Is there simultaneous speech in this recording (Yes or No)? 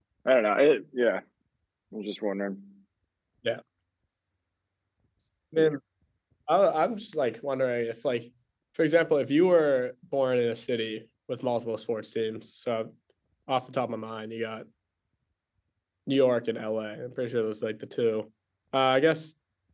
No